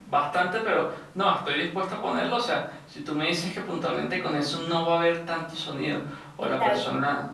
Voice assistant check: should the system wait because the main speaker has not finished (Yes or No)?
Yes